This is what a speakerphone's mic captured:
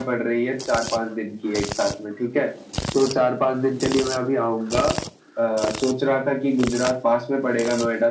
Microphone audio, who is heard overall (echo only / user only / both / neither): echo only